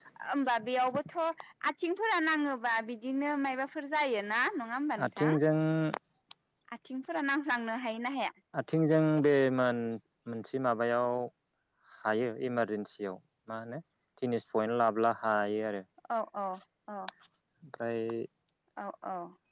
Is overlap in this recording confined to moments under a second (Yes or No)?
Yes